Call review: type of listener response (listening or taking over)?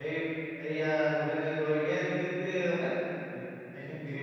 listening